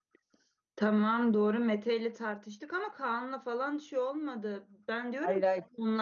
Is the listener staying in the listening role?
Yes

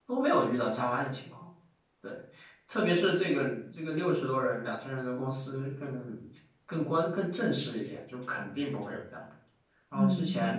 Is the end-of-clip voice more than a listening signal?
No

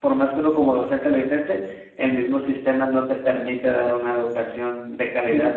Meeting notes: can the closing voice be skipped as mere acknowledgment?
No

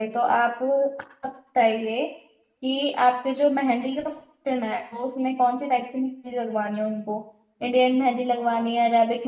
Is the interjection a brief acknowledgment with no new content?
Yes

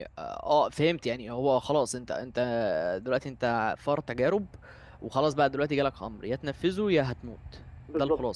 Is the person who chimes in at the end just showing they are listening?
No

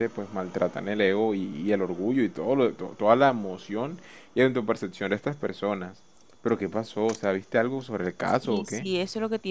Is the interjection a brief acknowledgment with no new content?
No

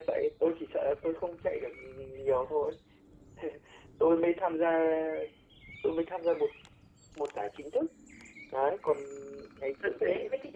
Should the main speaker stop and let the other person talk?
Yes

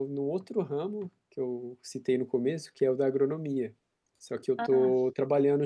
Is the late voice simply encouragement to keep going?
Yes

